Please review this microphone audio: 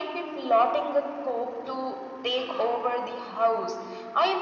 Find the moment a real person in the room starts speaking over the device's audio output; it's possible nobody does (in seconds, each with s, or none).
none